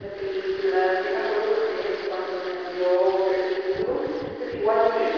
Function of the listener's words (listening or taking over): listening